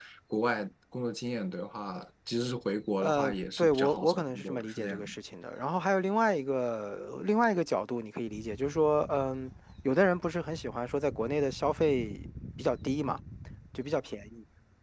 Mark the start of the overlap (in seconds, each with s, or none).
3.0 s